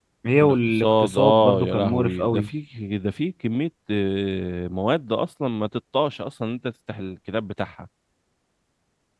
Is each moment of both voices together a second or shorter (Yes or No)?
No